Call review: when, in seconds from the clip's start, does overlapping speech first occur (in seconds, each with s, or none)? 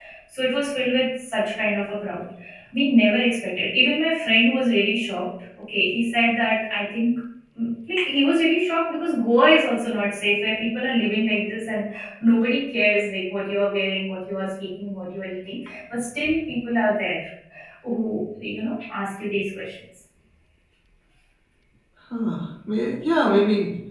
none